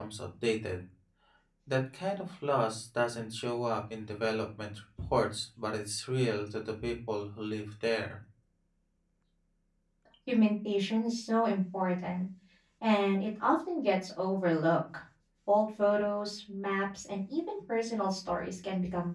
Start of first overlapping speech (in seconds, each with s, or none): none